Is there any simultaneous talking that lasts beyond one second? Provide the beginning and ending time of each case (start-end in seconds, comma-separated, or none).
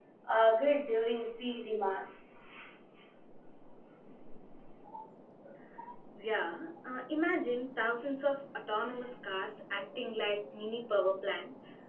none